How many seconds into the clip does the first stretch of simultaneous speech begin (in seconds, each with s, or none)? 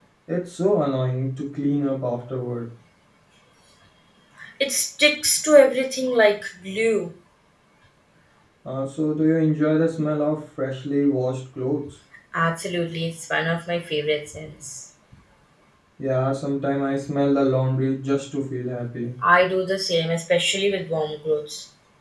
none